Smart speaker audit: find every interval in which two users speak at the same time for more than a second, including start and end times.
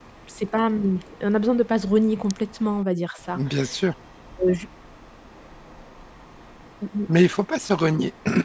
none

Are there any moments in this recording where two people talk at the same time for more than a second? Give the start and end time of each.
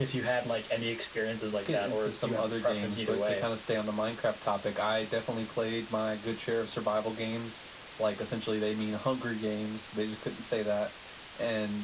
1.7-3.4

